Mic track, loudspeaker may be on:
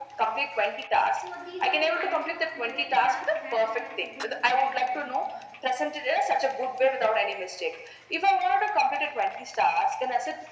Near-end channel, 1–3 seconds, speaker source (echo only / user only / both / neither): both